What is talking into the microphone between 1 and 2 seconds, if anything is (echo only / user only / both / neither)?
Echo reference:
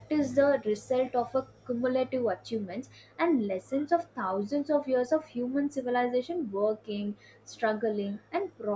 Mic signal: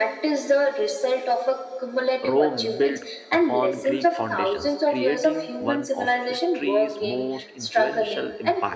echo only